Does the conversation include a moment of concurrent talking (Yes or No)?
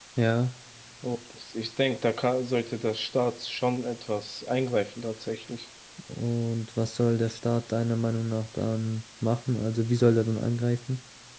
No